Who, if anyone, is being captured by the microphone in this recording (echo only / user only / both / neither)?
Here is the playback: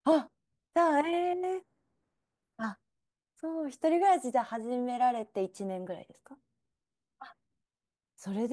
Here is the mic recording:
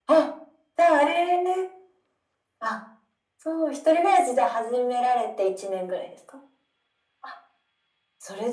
echo only